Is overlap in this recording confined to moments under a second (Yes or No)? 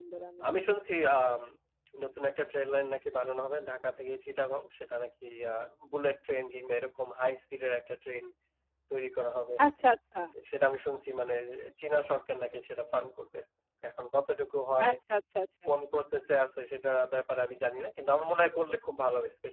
Yes